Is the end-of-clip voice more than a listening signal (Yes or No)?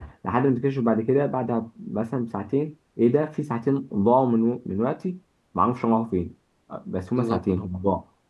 No